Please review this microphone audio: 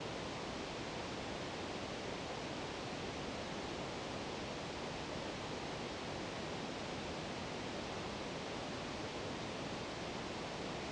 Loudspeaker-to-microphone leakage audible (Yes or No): No